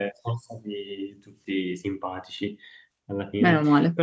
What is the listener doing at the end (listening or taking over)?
listening